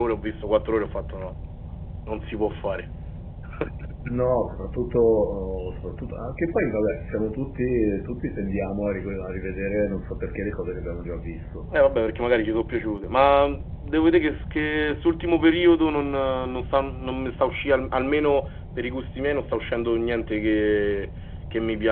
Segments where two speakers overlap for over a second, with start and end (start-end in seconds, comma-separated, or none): none